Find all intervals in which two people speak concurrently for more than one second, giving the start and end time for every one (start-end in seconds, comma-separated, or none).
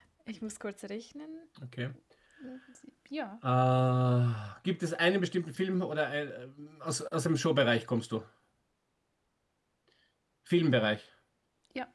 none